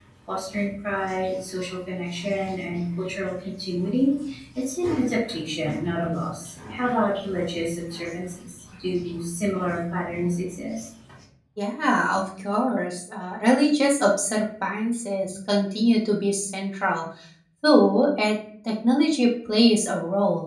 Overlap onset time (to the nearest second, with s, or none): none